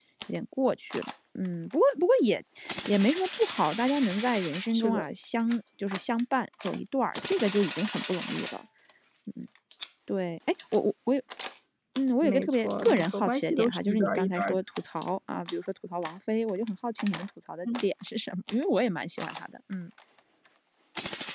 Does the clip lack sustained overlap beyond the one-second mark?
No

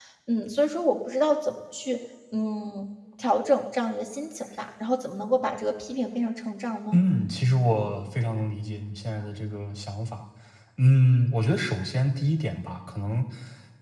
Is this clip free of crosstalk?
Yes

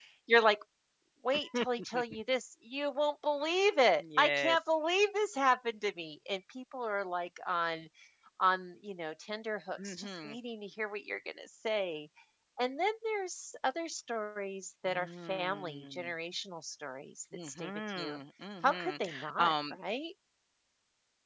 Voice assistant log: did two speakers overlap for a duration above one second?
Yes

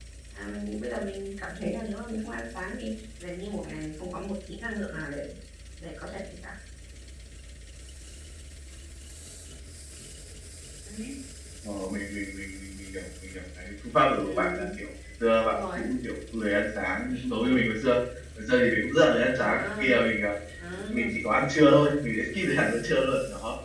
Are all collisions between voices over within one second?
Yes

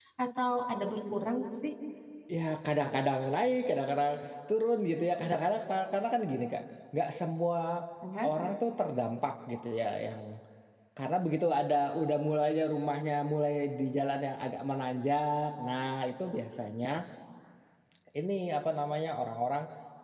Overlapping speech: No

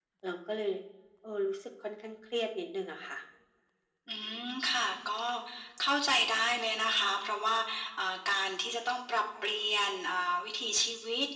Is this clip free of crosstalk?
Yes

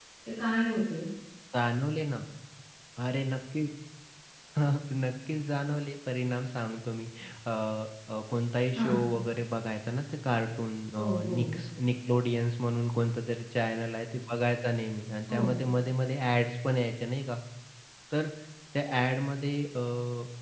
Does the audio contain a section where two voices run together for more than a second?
No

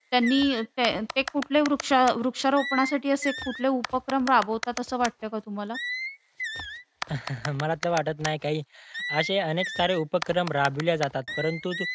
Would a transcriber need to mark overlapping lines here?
No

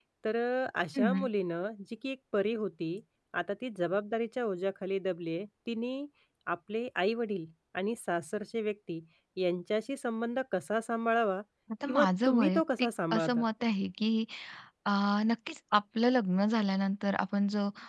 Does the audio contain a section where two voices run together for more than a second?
Yes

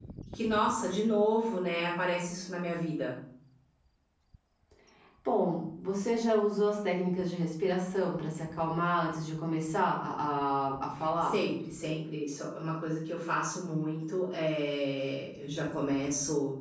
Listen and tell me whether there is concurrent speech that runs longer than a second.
No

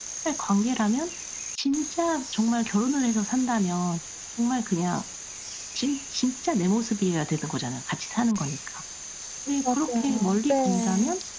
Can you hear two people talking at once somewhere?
Yes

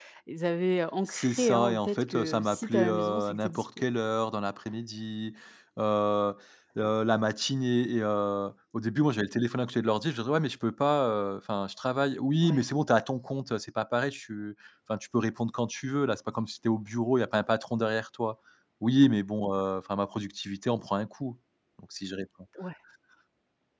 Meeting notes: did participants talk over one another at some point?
Yes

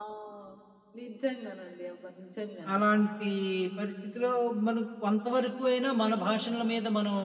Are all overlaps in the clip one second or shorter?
Yes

